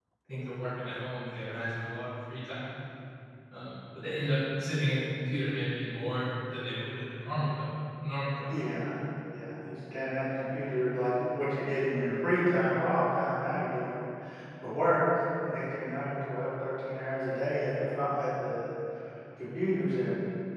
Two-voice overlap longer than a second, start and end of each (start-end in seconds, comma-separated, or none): none